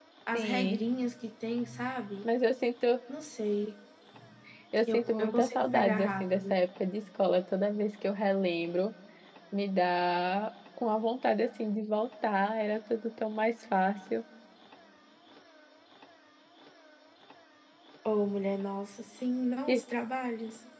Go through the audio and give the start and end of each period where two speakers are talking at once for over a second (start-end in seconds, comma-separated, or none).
4.9-6.6